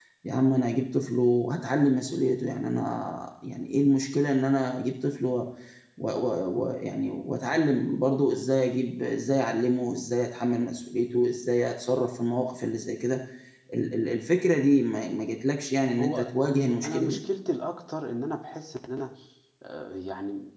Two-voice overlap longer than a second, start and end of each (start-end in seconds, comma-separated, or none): 16.0-17.2